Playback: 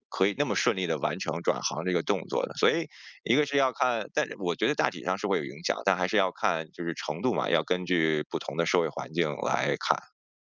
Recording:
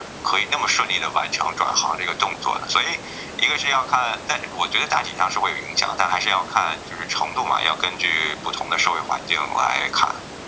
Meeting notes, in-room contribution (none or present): none